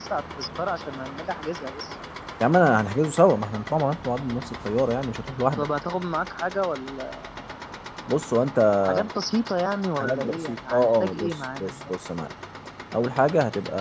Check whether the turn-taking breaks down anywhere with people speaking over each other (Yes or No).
Yes